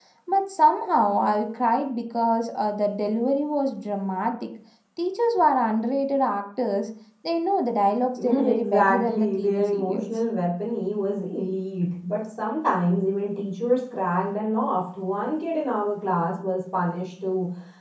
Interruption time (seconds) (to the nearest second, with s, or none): 8 s